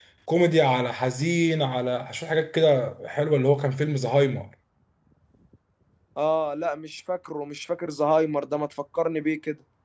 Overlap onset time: none

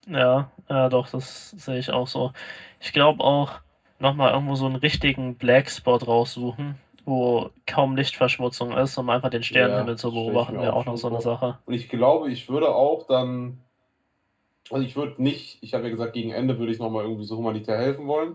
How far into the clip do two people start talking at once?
10 s

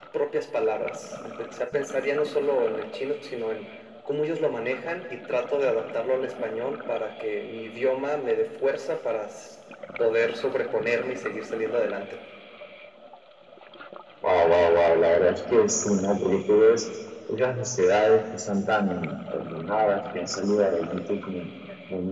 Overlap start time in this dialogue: none

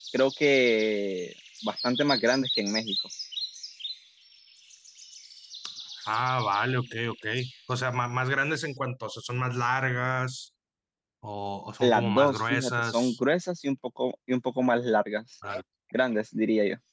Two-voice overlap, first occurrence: 12 s

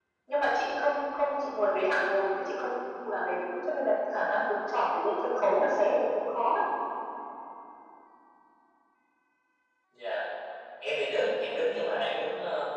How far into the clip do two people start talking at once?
none

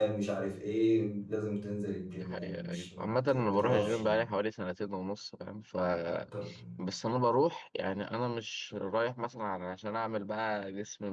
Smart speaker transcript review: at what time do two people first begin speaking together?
2 s

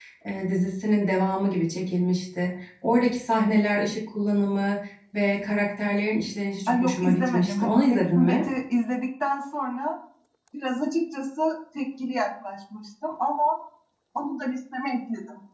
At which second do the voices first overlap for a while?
7 s

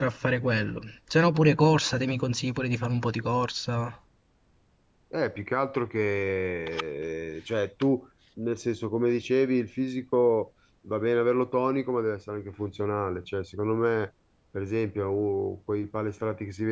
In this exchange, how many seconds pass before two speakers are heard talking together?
none

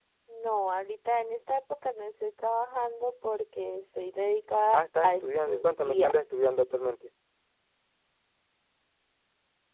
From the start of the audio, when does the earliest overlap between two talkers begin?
5 s

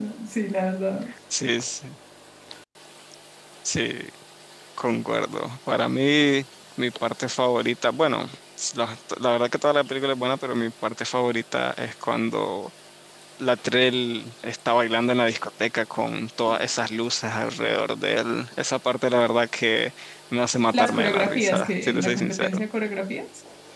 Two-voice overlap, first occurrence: 21 s

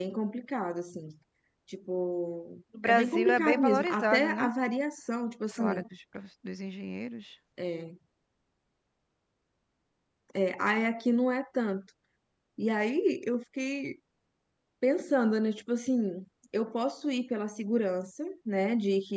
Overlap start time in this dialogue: 3 s

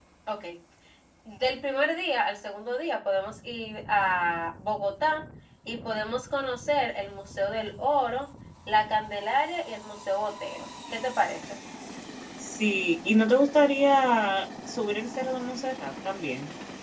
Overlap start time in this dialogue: none

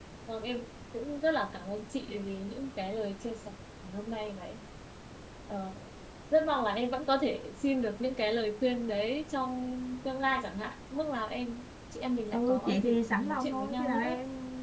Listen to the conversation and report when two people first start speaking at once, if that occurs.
12 s

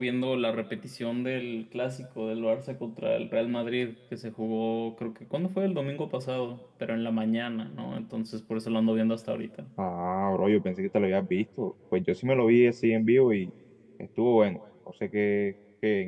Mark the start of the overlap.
none

